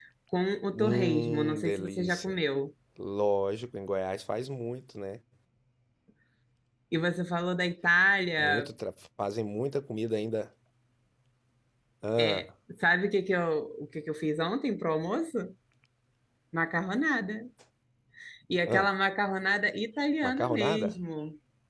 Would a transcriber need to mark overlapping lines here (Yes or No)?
Yes